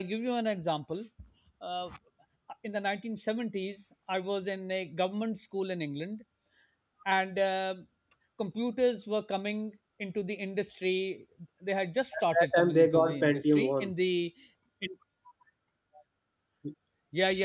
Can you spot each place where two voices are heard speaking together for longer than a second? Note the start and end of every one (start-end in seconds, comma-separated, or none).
12.2-13.6